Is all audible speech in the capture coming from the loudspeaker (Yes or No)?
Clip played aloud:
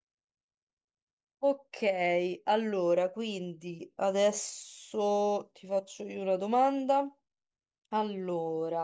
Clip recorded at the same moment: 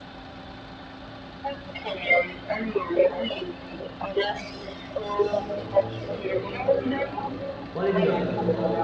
No